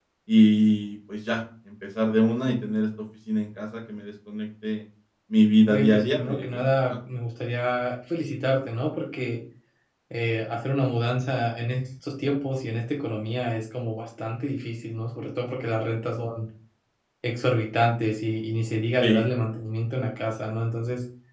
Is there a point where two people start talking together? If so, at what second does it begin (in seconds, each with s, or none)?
5.7 s